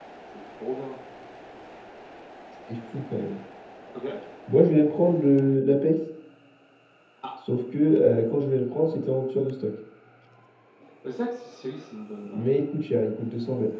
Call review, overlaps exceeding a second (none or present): none